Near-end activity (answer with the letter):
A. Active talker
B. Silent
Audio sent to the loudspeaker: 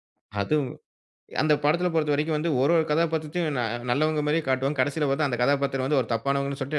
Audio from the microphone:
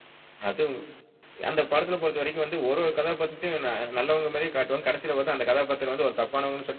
B